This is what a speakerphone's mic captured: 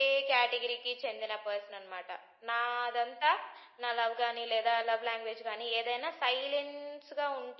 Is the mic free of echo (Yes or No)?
No